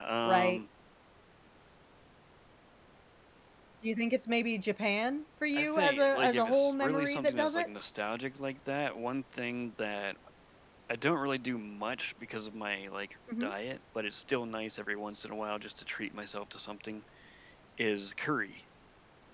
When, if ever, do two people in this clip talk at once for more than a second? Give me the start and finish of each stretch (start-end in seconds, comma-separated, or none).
5.5-7.7